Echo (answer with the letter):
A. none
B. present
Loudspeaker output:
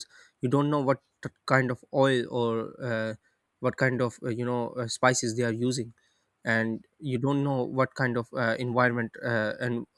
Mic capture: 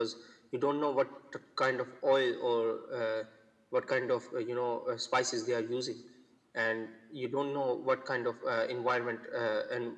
B